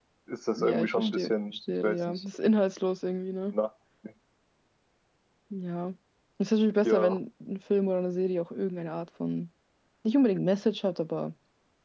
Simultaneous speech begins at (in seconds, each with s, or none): 0.6 s